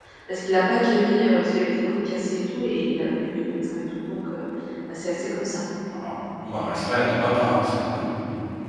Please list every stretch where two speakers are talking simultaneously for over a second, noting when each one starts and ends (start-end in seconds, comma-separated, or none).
none